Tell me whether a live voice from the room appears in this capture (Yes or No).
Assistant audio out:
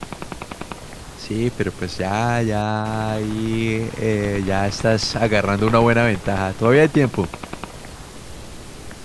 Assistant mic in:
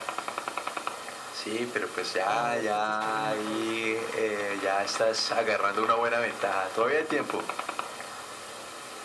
Yes